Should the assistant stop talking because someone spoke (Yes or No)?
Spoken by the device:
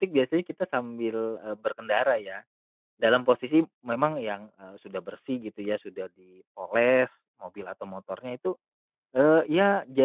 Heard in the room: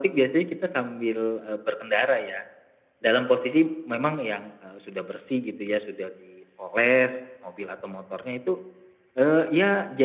No